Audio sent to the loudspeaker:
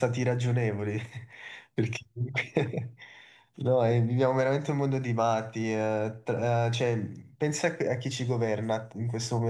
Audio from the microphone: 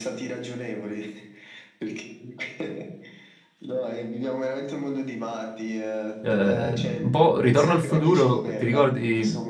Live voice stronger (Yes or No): Yes